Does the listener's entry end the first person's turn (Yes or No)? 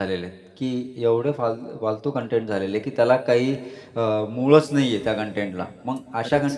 No